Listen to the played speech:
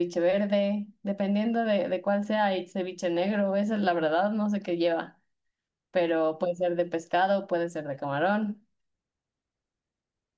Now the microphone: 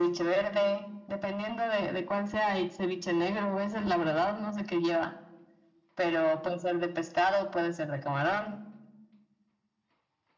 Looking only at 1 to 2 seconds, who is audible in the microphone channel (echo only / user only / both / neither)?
echo only